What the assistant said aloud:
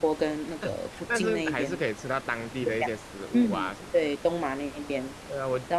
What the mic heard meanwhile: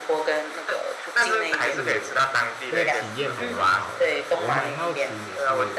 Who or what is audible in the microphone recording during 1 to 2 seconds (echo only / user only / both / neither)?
both